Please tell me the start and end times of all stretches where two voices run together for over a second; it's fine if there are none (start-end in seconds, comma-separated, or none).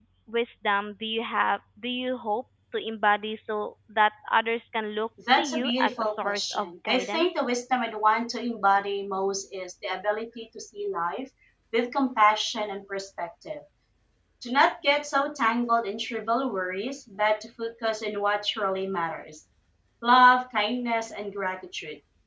5.4-7.3